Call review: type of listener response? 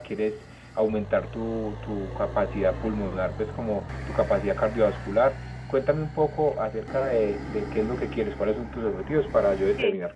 taking over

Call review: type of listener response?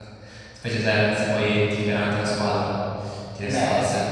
taking over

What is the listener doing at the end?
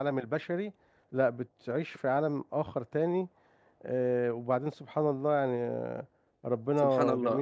listening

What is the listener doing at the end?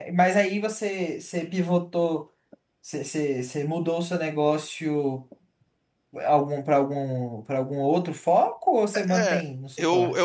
taking over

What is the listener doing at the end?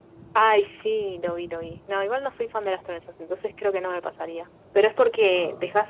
listening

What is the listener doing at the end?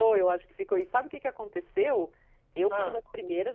listening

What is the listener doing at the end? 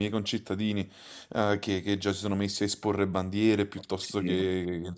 listening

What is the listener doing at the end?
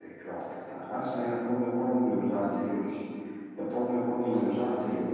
listening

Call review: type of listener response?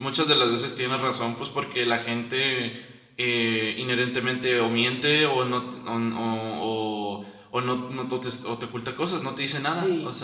taking over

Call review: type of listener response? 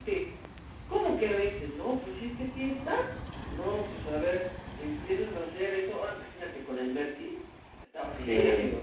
taking over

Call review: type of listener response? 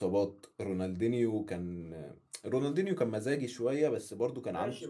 taking over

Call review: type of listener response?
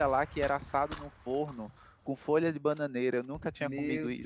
taking over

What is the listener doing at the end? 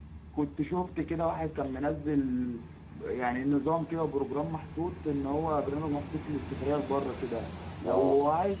listening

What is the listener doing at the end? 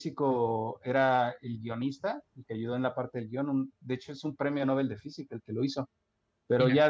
listening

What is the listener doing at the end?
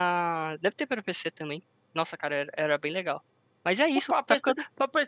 taking over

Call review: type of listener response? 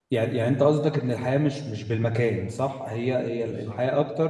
listening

